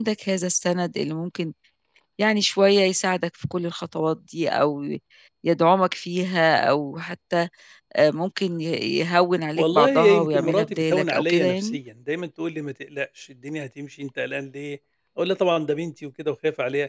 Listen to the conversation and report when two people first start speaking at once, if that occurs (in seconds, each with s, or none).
9.6 s